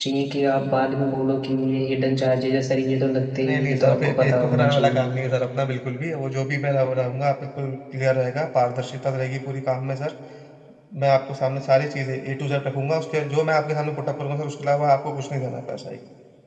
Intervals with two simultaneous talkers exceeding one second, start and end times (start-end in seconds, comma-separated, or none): 3.4-5.0